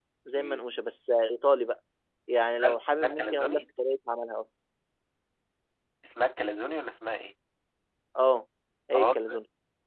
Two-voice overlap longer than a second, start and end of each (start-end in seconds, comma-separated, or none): 2.4-3.6